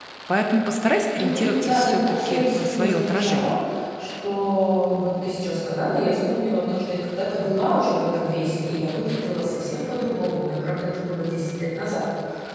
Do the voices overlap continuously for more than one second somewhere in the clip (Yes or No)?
Yes